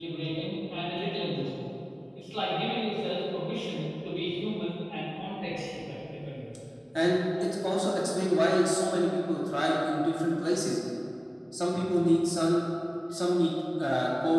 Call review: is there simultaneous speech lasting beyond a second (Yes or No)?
No